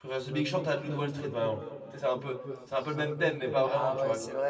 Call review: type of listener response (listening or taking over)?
taking over